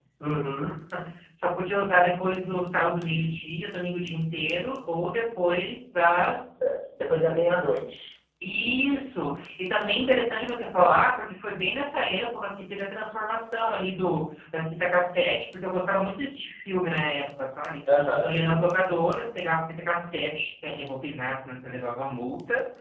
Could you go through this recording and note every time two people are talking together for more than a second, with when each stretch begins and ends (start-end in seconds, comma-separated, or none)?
none